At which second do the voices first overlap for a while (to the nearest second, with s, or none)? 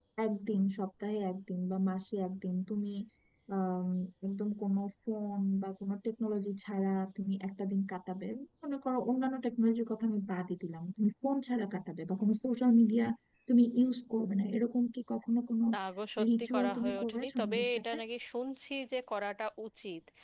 16 s